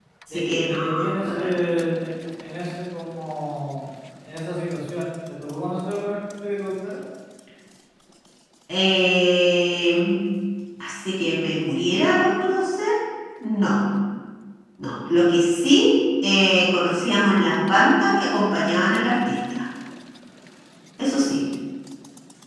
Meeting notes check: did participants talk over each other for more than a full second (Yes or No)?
Yes